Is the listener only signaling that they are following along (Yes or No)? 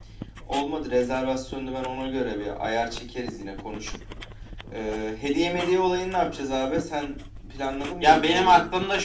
No